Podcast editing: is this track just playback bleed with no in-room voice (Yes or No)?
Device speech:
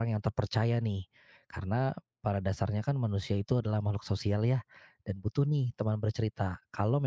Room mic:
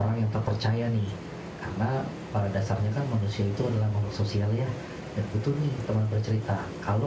Yes